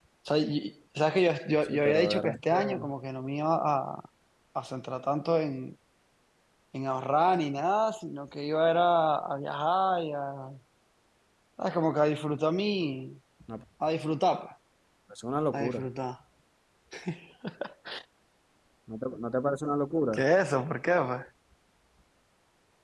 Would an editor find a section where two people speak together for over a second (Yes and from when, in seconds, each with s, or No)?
Yes, from 1.6 s